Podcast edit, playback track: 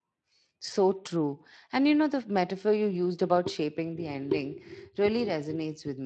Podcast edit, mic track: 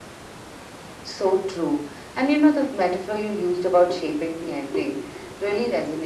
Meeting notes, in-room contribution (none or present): none